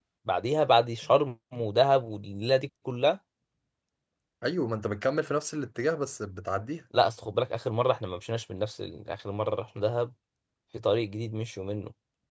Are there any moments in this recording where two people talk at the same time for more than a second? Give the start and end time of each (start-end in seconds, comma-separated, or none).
none